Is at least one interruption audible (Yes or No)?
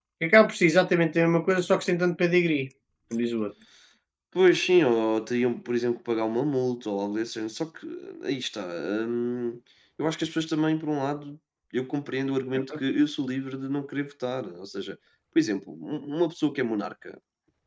No